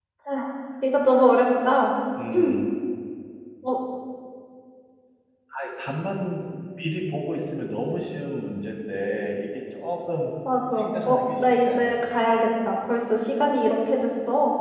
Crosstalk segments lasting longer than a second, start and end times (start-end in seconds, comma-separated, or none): 10.7-12.1